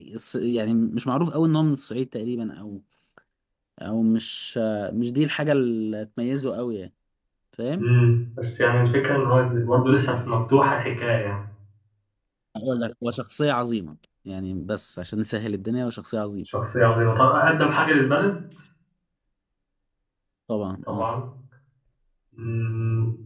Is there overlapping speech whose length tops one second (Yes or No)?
No